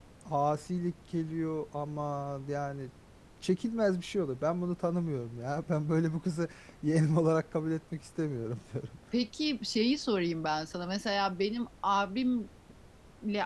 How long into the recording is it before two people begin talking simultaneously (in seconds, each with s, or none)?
none